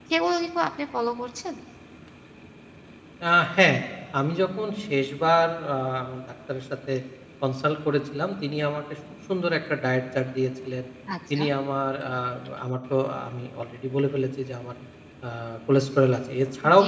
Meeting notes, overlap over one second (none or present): none